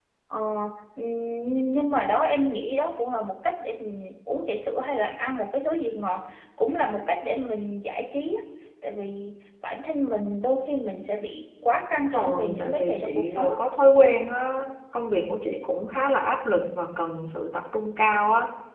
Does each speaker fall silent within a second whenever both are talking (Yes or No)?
No